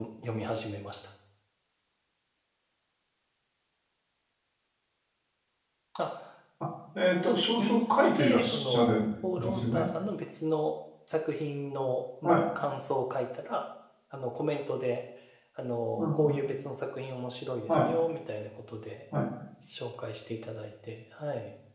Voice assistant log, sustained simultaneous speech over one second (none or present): present